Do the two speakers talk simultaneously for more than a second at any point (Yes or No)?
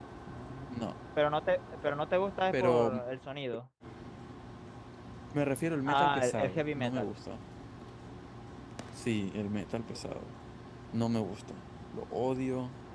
Yes